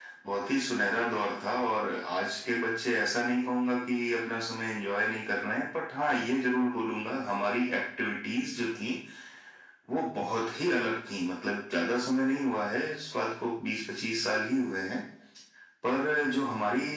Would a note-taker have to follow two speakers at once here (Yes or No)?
No